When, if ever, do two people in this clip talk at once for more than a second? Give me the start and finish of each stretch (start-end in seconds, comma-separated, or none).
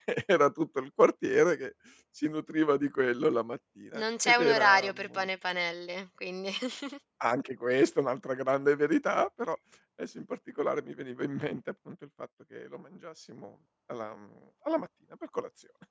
3.9-5.2